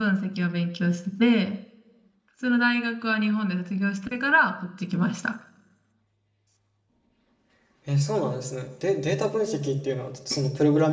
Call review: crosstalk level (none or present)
none